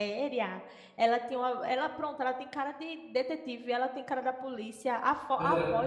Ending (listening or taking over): listening